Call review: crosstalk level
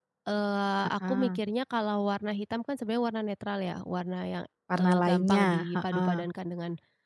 present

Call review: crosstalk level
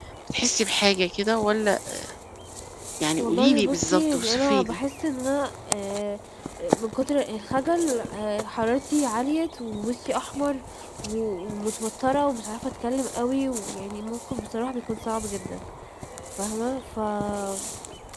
present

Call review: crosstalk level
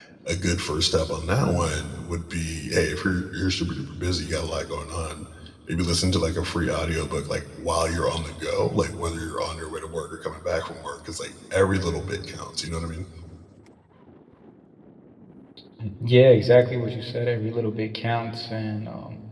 none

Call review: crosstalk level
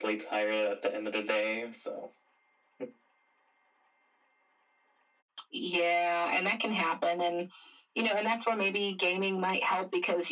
none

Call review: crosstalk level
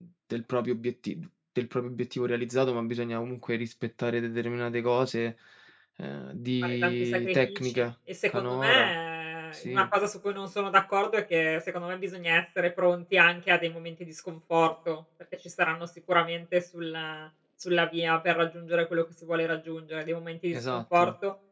present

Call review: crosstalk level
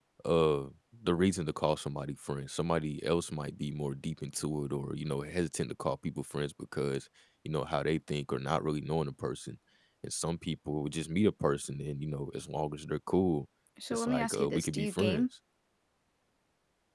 present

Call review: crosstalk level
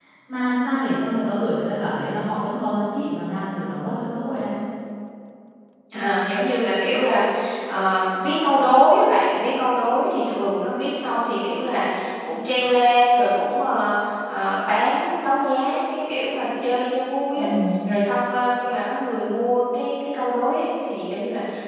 none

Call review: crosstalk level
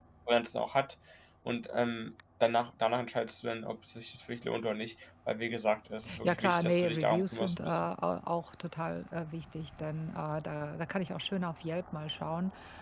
present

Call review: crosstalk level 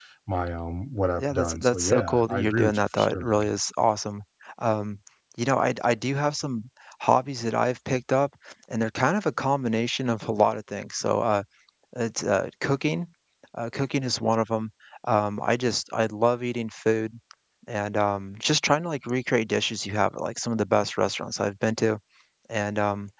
present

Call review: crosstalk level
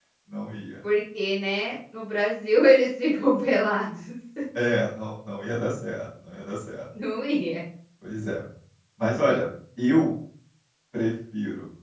none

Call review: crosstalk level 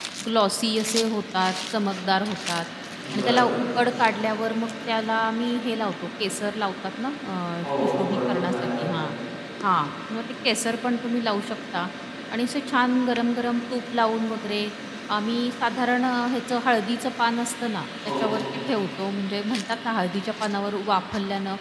present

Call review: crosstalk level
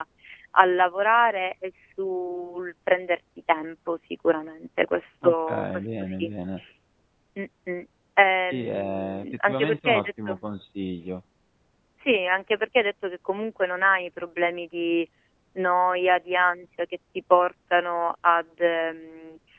present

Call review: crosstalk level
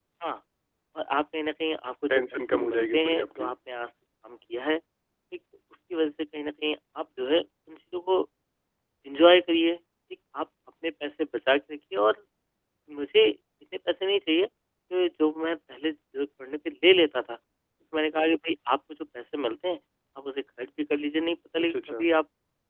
present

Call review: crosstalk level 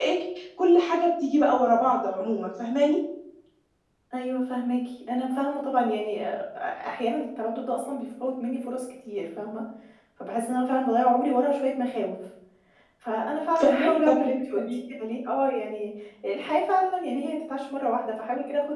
present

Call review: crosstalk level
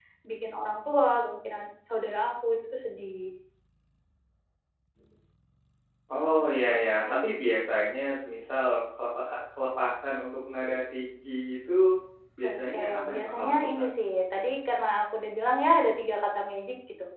present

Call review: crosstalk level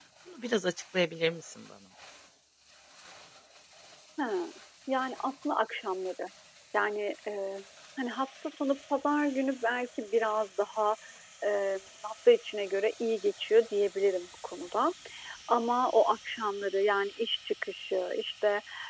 none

